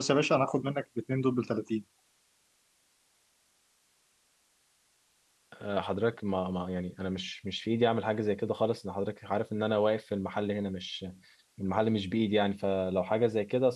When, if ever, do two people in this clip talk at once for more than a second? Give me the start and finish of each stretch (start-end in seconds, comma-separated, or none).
none